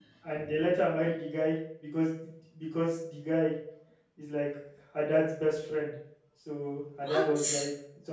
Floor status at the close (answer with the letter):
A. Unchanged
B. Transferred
A